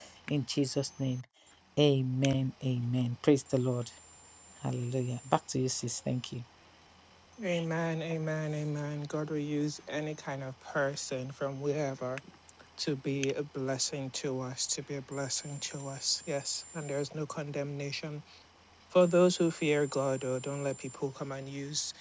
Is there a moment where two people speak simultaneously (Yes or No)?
No